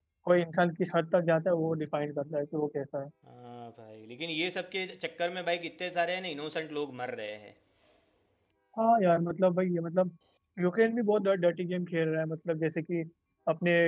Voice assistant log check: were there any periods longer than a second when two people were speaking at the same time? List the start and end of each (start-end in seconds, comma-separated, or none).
none